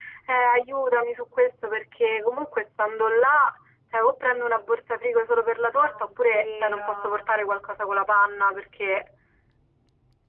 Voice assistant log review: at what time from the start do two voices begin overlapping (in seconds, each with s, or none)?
5.7 s